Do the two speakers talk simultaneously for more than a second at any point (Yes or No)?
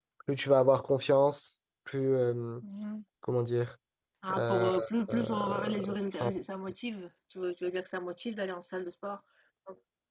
Yes